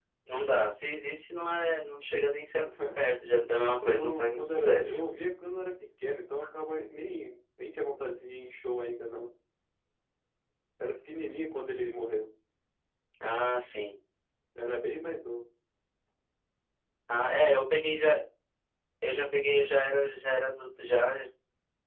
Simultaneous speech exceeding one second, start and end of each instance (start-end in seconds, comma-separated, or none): 3.8-5.1